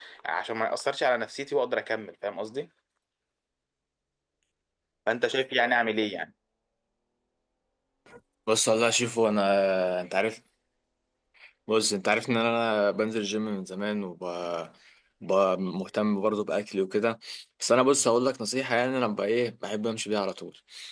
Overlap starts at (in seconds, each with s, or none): none